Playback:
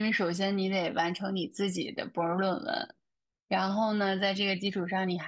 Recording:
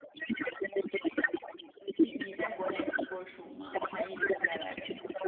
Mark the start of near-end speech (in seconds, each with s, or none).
2.0 s